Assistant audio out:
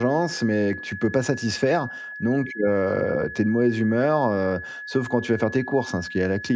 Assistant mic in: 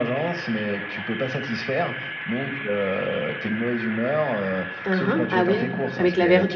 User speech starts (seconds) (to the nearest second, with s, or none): 5 s